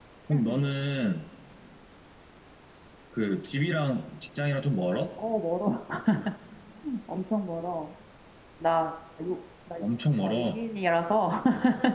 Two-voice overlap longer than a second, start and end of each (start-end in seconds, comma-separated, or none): none